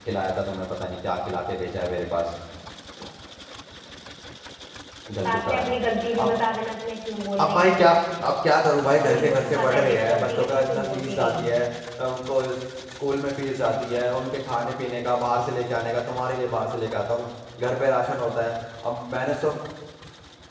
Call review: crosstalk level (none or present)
present